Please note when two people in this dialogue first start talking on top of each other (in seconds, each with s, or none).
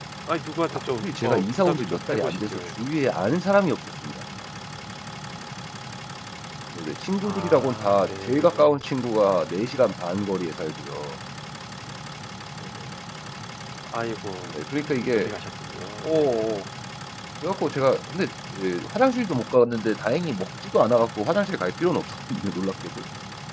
0.7 s